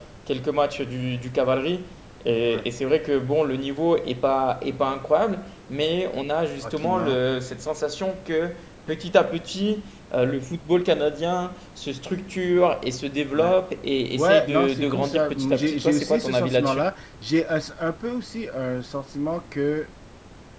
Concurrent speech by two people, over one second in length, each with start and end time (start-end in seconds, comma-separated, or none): 14.2-16.8